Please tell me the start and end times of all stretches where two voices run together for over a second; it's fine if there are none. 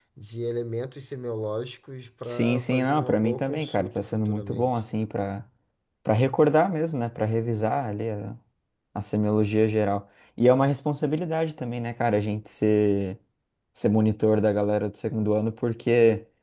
2.2-4.8

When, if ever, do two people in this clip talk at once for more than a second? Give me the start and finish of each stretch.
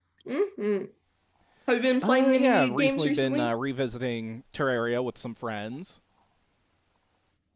2.0-3.5

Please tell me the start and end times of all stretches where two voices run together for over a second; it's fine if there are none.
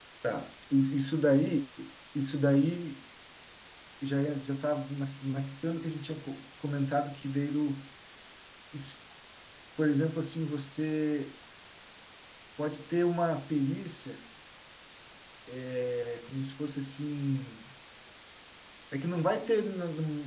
none

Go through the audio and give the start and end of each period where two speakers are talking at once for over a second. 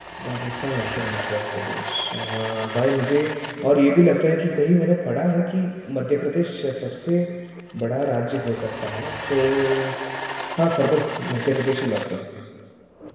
none

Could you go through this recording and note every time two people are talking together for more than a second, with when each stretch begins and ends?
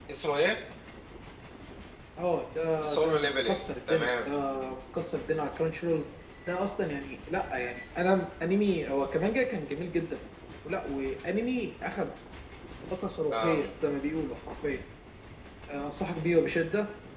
2.9-4.3

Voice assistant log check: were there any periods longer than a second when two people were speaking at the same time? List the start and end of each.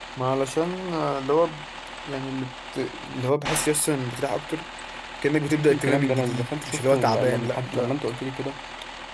5.5-7.9

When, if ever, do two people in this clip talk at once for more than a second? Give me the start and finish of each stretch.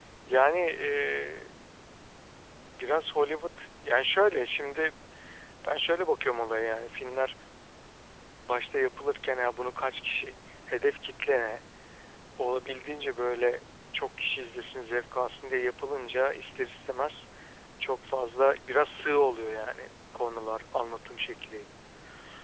none

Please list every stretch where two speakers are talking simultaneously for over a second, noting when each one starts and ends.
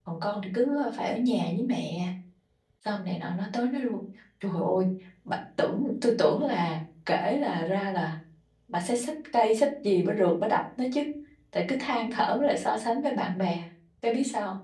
none

